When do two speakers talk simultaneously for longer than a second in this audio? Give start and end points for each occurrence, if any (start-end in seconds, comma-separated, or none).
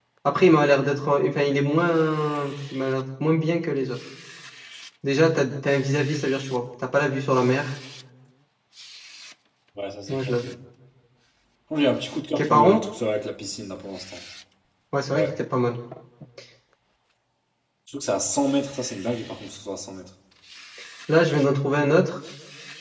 none